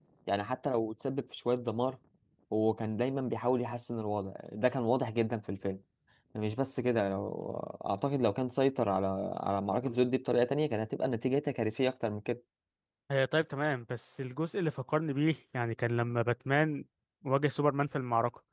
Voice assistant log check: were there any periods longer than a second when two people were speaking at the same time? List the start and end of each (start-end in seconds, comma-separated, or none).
none